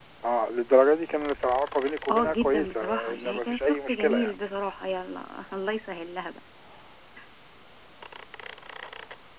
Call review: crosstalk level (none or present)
present